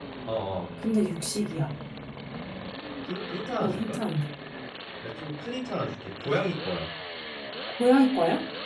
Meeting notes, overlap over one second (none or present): none